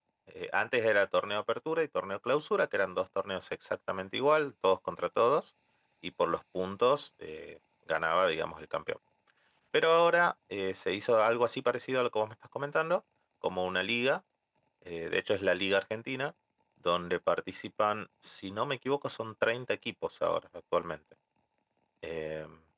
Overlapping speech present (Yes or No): No